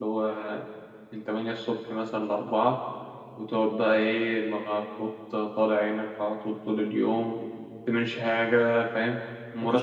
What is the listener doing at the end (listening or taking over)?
listening